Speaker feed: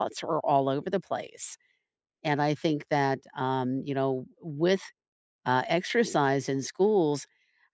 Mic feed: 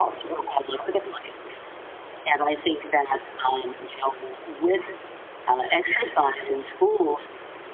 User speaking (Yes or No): No